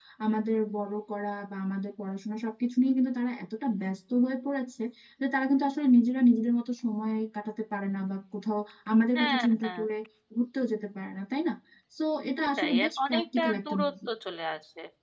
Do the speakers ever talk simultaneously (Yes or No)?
Yes